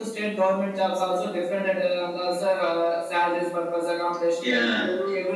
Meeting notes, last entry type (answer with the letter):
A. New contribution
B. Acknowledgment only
B